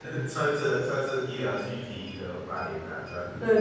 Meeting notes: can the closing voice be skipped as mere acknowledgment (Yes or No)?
No